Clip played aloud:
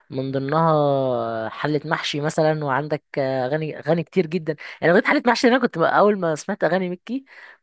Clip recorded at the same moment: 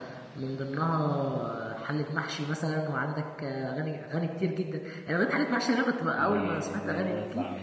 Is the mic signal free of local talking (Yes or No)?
No